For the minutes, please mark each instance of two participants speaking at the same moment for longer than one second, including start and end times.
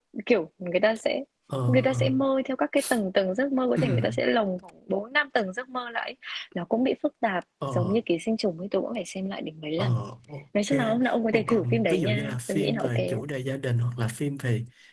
11.3-13.2

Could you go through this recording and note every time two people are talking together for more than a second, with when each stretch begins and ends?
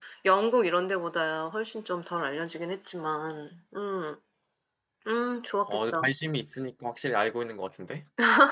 none

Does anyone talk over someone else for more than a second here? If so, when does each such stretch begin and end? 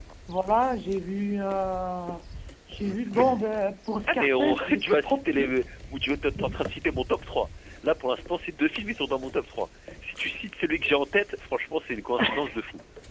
4.1-5.5

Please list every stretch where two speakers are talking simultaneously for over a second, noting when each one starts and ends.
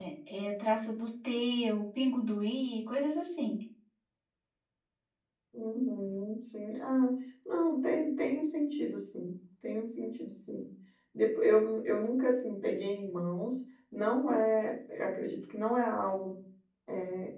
none

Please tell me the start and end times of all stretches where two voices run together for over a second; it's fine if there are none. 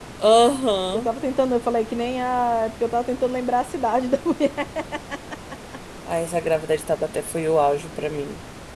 none

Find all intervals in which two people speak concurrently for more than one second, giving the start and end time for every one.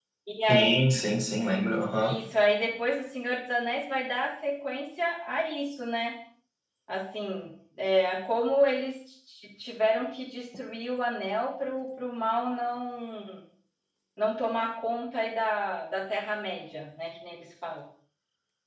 none

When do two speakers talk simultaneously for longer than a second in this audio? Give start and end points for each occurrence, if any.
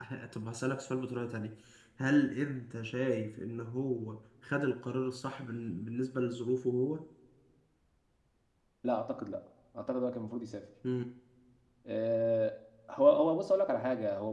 none

